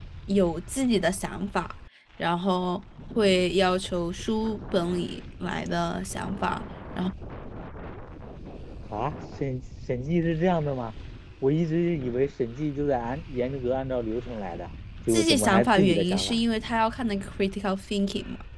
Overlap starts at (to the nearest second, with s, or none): 15 s